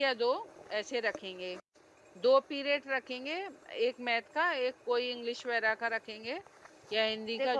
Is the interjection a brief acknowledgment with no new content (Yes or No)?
No